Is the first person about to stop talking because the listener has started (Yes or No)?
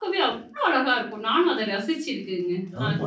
Yes